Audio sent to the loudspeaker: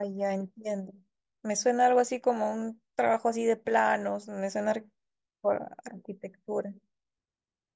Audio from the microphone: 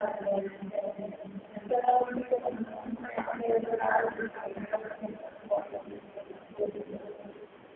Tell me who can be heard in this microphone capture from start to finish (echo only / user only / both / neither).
echo only